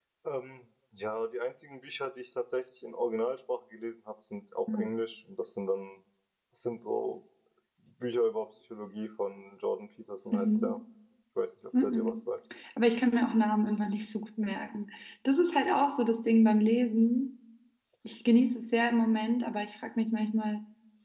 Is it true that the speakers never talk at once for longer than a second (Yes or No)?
Yes